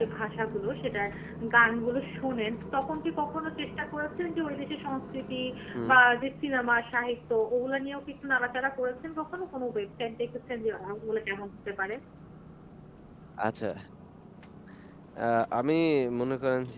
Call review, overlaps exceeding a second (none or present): none